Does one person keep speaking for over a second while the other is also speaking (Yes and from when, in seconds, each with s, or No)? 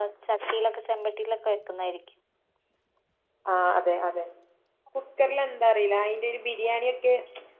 No